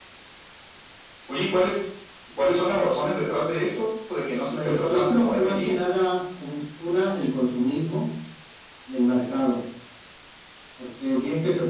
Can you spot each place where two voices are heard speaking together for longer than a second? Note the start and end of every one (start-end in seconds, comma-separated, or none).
4.5-5.8